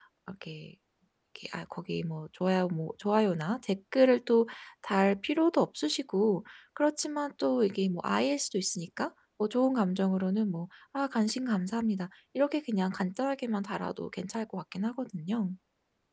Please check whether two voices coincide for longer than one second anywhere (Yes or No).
No